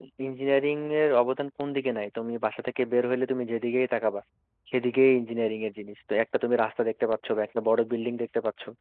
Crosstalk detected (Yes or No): No